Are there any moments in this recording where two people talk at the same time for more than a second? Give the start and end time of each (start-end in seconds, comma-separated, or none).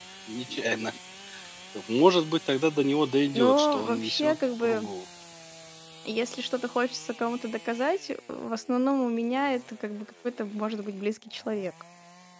3.4-4.9